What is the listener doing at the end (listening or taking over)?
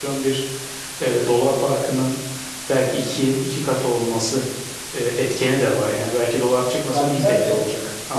taking over